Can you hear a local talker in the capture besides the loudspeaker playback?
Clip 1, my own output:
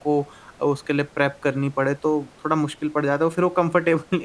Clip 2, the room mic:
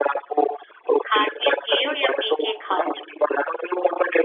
Yes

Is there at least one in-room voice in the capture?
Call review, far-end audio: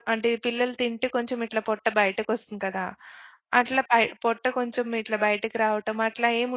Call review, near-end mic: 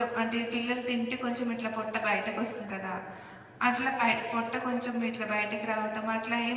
No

